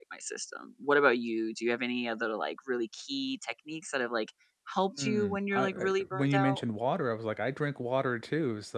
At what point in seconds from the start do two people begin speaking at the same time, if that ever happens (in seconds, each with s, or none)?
5.0 s